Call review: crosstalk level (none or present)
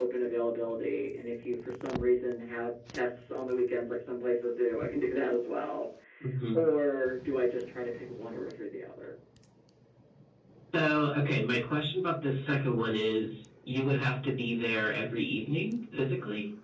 none